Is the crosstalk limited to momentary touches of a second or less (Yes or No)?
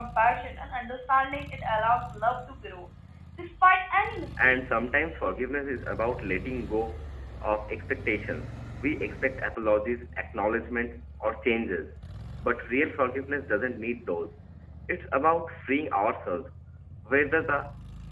Yes